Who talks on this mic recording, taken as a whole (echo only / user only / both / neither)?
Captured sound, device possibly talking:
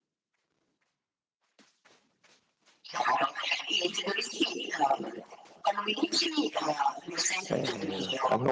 both